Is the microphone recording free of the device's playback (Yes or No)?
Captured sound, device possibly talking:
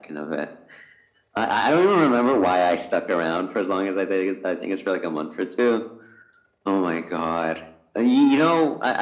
No